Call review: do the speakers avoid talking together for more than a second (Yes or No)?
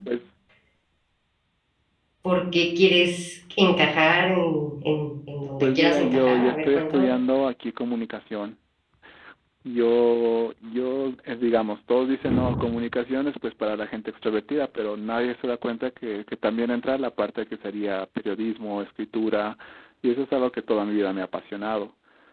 No